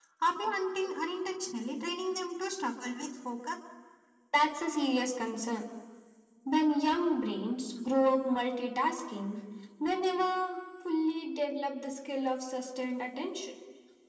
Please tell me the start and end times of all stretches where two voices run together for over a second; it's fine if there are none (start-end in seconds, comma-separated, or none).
none